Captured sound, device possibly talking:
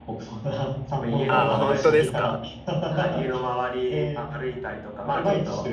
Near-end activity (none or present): present